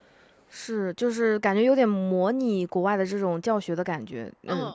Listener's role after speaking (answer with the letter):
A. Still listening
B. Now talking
B